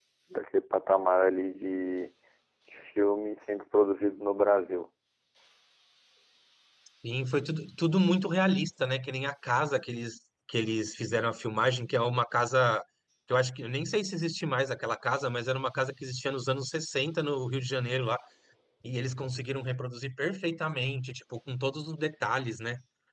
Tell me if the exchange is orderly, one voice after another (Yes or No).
Yes